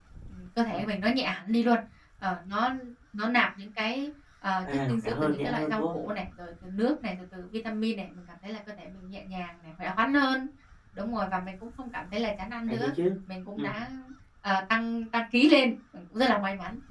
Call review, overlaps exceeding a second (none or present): present